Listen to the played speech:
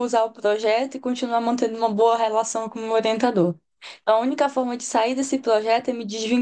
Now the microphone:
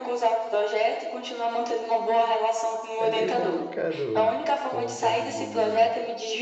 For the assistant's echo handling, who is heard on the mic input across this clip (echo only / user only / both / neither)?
both